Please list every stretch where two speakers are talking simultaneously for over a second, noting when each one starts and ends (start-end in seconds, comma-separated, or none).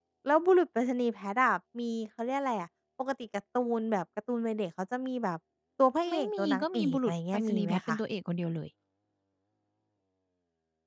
6.1-8.0